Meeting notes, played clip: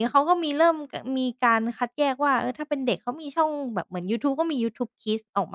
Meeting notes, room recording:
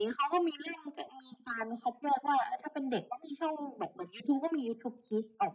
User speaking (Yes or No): No